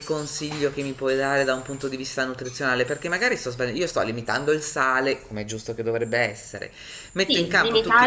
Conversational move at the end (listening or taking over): taking over